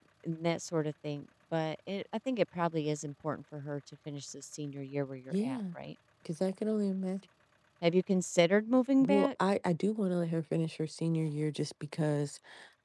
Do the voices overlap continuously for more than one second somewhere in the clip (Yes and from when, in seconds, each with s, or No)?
No